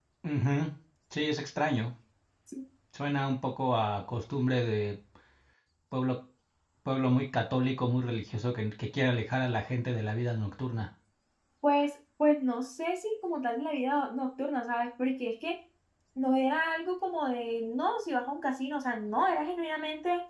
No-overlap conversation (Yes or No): Yes